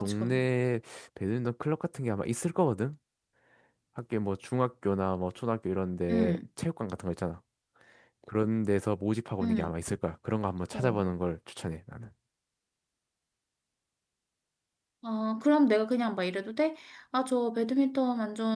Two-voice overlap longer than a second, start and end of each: none

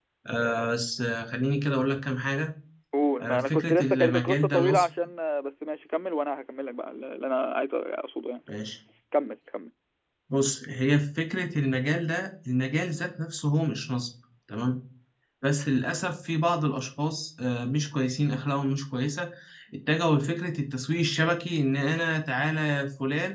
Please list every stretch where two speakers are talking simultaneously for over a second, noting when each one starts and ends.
3.2-4.8

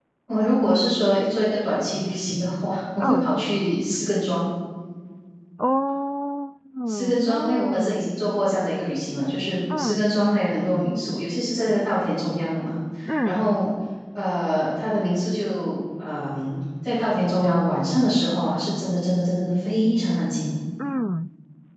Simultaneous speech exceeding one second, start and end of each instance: 6.9-8.1

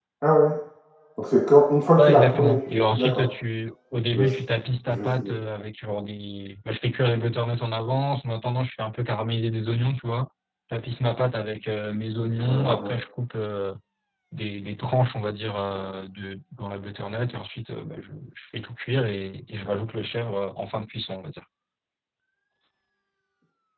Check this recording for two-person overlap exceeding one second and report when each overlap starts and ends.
2.0-3.3

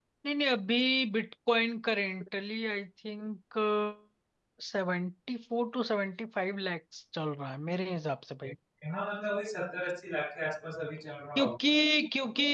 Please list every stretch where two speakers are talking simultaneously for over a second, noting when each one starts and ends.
none

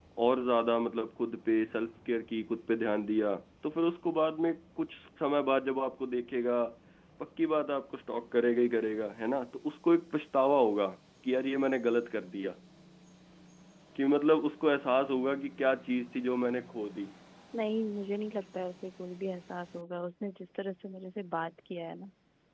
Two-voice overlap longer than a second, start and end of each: none

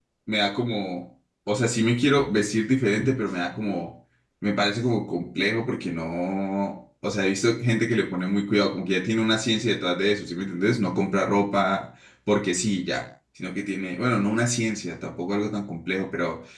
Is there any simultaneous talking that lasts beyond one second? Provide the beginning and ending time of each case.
none

